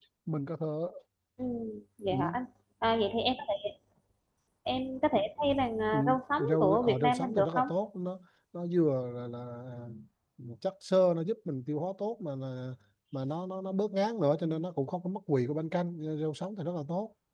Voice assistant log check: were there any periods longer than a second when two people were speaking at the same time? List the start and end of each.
6.4-7.7

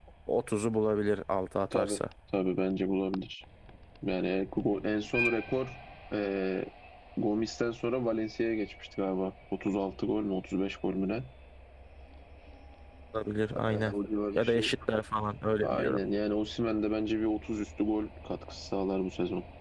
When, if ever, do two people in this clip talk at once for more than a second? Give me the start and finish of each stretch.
none

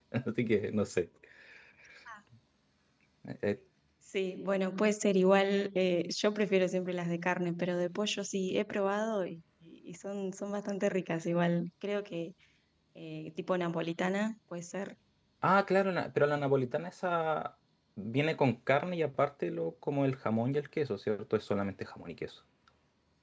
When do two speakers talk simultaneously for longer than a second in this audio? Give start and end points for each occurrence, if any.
none

